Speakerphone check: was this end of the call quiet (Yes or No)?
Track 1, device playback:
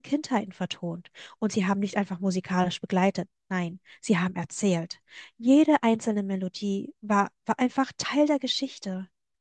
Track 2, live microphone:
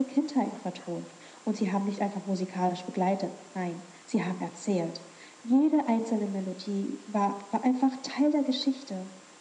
Yes